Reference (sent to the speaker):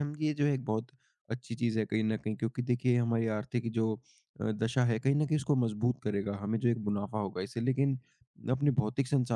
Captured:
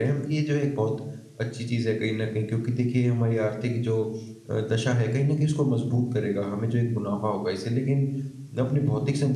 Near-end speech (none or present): none